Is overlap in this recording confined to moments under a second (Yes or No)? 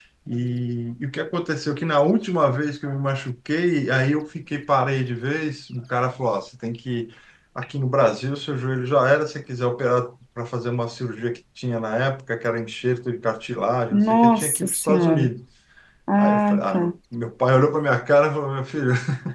No